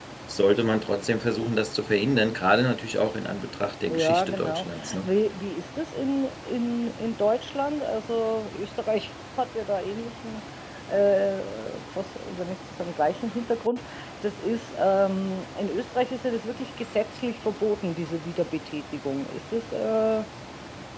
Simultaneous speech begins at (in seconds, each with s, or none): 3.9 s